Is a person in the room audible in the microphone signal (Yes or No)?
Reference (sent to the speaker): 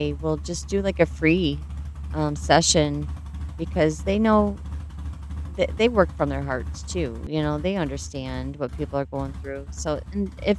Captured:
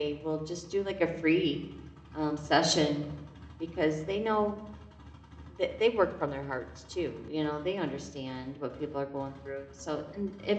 No